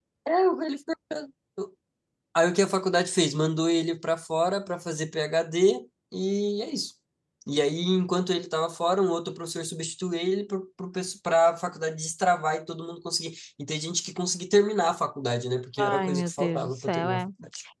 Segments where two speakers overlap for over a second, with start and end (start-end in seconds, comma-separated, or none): 15.8-17.2